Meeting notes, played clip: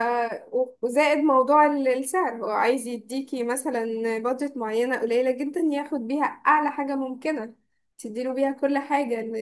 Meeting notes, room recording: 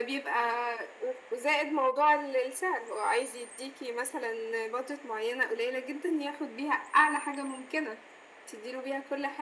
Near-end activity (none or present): none